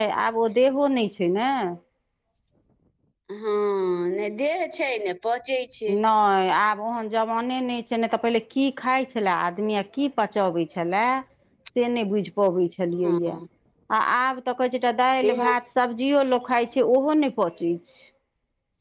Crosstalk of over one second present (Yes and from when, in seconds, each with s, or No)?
No